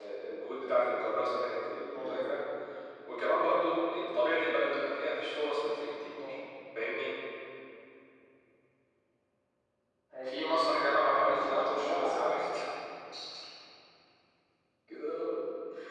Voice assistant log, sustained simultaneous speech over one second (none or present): present